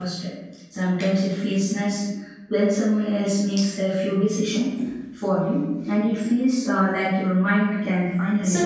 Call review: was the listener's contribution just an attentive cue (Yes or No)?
No